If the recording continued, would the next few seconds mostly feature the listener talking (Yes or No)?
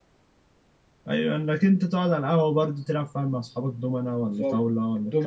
Yes